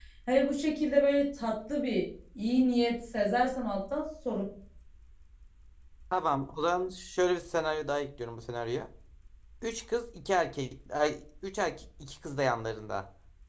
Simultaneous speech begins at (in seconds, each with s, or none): none